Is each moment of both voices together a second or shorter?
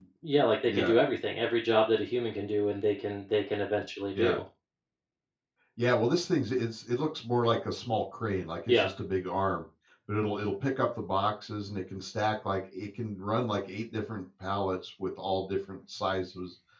Yes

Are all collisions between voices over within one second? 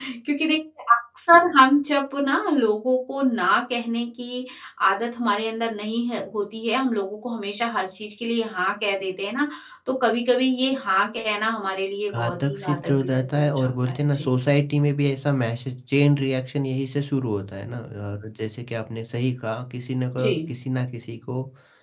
No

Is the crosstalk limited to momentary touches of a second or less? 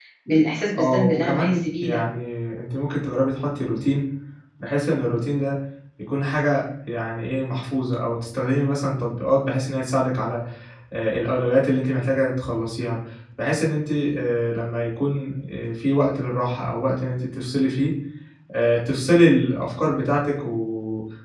No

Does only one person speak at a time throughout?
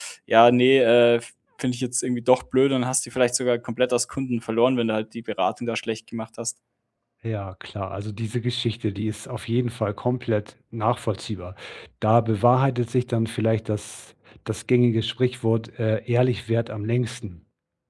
Yes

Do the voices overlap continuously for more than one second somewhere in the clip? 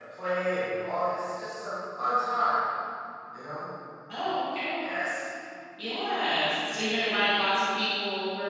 No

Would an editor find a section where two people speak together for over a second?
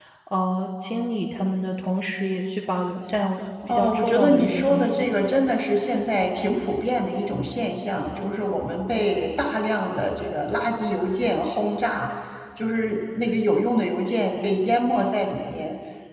Yes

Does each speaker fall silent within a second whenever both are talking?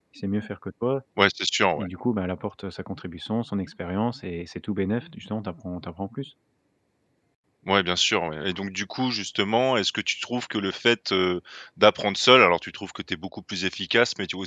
Yes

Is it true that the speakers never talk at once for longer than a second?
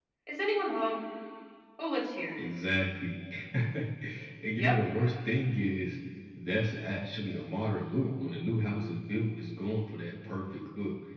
Yes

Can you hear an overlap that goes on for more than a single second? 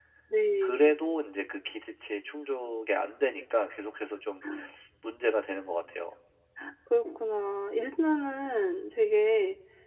No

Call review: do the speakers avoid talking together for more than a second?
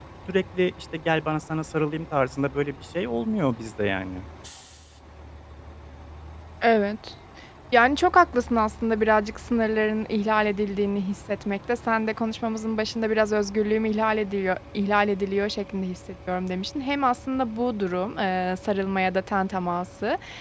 Yes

